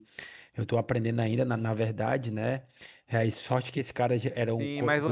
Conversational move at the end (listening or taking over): taking over